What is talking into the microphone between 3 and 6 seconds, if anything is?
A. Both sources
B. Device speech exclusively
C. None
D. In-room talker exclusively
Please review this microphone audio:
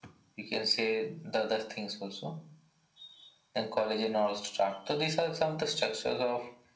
B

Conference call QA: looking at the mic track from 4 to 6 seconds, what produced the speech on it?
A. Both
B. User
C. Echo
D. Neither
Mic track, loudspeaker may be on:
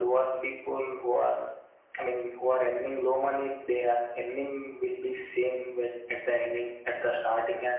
C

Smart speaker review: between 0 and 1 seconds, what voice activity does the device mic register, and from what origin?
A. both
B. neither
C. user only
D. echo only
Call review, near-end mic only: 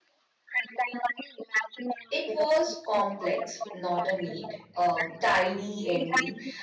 D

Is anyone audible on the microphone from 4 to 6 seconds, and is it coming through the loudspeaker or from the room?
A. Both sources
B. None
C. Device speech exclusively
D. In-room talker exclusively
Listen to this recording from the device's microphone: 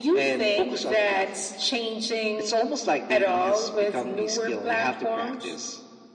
C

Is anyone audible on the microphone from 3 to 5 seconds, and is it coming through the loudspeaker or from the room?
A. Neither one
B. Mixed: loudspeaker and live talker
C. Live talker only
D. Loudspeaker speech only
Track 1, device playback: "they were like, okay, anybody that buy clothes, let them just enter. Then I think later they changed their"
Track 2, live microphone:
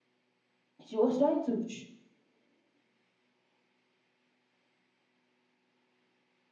A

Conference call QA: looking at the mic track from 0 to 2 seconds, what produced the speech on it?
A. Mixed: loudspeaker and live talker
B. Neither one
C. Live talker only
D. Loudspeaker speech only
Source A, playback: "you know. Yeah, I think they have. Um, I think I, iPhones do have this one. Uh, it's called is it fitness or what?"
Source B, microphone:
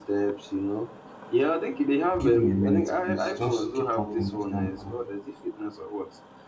D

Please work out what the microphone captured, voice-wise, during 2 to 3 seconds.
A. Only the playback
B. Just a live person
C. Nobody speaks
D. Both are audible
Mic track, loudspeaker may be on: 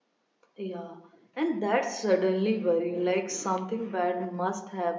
B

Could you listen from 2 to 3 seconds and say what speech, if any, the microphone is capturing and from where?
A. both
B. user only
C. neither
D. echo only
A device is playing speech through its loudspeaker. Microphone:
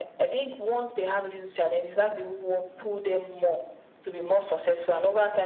D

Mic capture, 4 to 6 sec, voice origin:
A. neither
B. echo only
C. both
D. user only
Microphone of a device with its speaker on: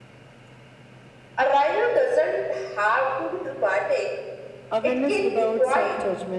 C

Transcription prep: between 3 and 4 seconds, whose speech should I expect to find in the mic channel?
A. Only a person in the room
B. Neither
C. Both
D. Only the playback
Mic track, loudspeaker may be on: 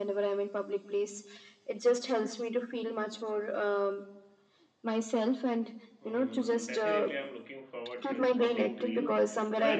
D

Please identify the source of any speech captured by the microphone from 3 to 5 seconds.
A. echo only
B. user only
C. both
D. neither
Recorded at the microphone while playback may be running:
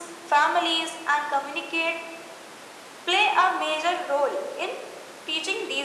A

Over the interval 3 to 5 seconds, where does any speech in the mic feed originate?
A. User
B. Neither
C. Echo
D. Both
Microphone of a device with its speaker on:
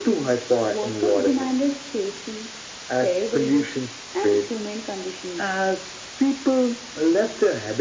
C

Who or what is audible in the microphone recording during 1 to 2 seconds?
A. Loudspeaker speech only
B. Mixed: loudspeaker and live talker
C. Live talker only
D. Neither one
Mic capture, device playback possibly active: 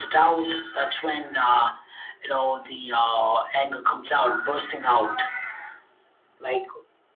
A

